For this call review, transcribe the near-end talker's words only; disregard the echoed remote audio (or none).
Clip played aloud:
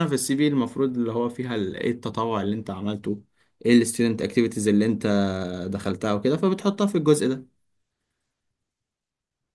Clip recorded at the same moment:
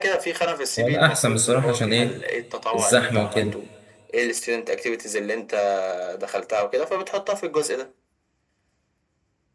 هو ده احسن بصراحة عشان ايه الزحمة وكده